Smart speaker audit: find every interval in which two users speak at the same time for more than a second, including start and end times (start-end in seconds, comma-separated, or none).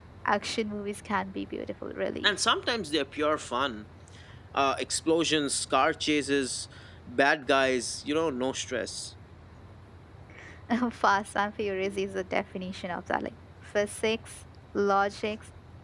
none